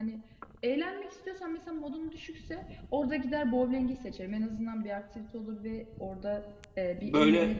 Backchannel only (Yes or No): Yes